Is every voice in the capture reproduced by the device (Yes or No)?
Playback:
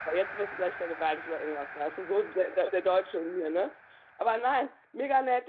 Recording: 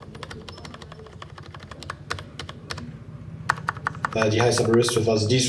No